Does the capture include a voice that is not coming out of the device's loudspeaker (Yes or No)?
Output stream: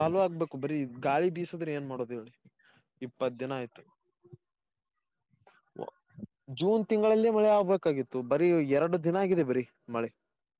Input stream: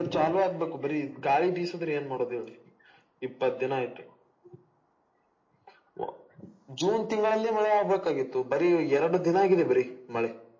No